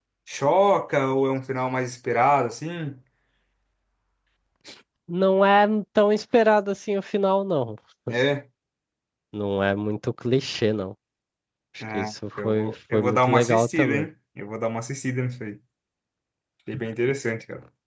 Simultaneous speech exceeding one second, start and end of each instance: 11.9-14.1

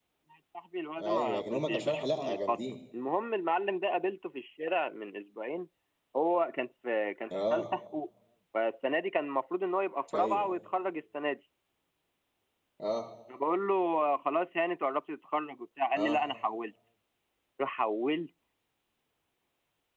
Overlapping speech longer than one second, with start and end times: 1.0-2.6

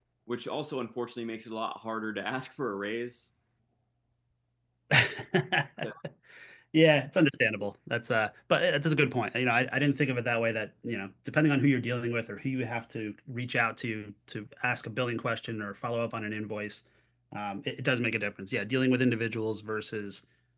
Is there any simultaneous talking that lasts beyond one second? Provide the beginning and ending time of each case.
none

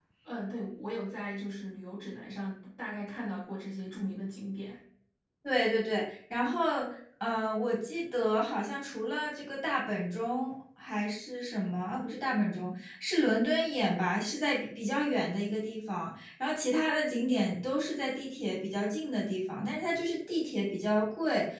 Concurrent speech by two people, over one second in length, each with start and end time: none

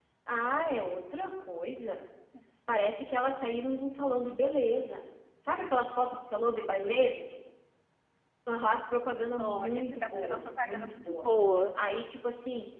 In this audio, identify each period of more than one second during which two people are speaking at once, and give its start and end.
9.4-11.2

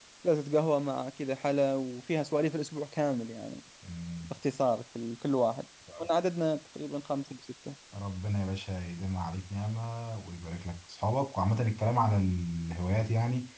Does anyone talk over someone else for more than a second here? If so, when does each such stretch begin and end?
none

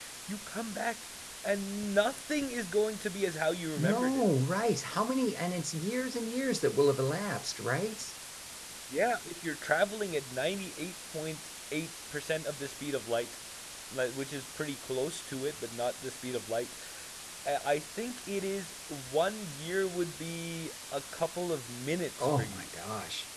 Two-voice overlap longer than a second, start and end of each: none

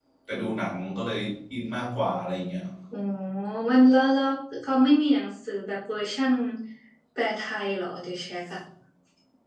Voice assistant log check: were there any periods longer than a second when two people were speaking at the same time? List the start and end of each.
none

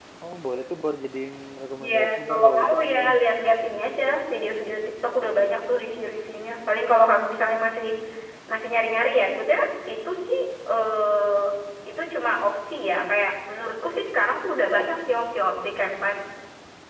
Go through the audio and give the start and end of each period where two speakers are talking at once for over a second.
1.9-3.1

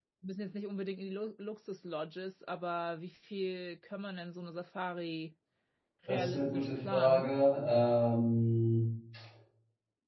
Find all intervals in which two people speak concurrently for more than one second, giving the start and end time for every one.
6.1-7.3

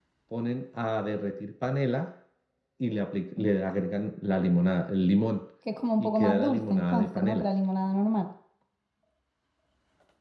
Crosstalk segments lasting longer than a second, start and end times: 6.0-7.4

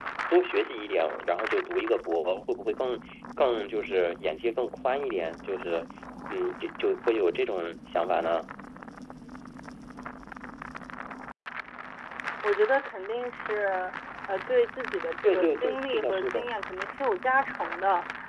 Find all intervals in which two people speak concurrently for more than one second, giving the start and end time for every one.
15.2-16.5

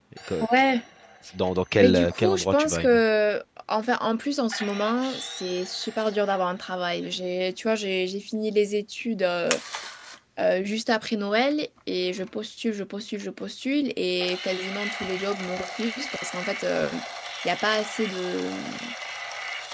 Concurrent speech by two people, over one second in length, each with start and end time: 1.7-3.0

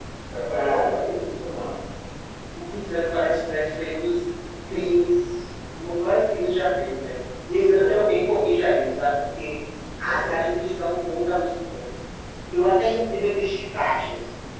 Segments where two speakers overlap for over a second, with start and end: none

